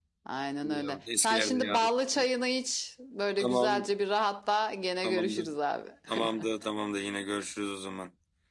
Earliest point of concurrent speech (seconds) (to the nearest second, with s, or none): 1 s